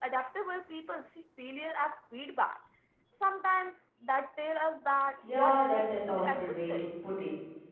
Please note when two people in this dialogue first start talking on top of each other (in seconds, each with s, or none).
5.2 s